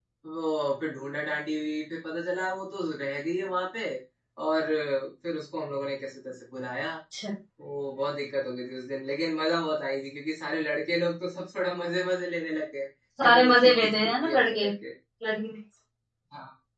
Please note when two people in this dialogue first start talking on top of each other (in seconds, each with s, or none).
13.2 s